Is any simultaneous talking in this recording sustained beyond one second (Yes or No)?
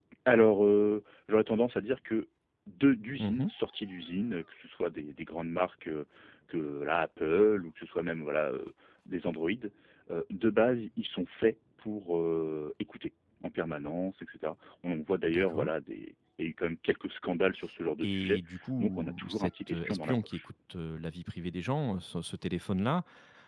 Yes